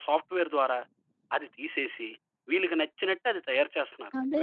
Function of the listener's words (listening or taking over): taking over